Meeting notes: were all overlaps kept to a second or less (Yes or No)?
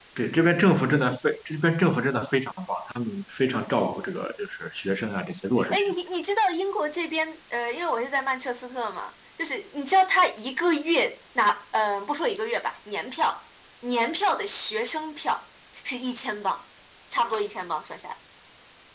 Yes